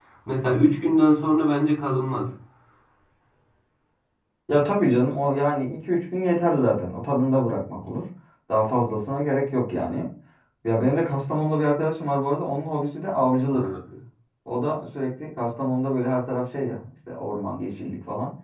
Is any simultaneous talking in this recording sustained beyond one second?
No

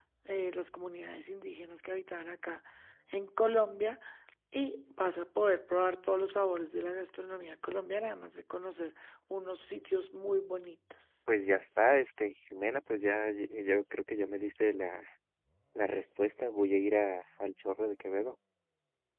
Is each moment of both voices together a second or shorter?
Yes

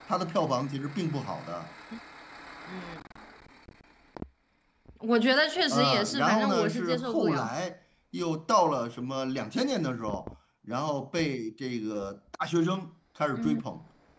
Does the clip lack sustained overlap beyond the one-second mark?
No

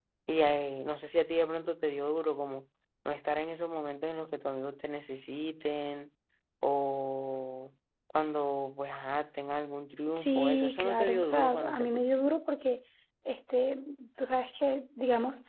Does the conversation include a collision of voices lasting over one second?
Yes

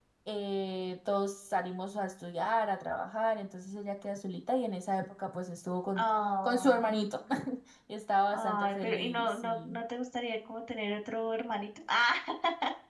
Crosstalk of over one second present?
Yes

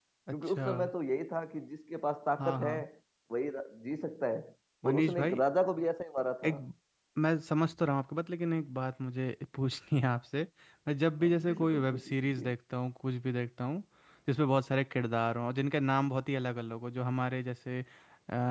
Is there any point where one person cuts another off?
Yes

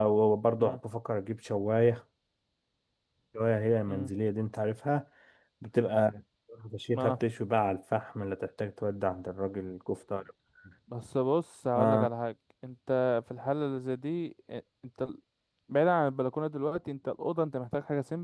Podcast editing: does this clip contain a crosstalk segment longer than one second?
No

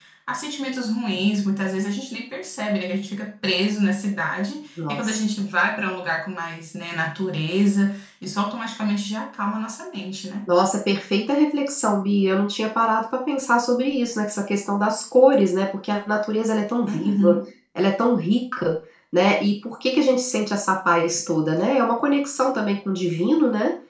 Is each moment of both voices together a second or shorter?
Yes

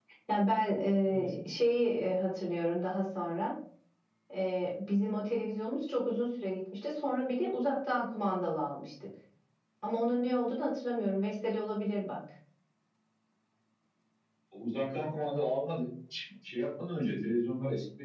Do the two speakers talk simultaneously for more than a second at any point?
No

